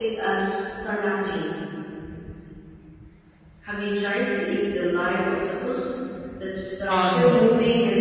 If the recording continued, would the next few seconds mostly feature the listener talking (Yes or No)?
No